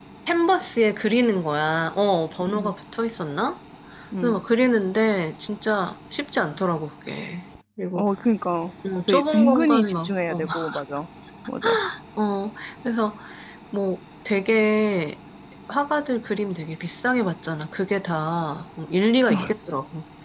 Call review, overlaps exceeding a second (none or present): present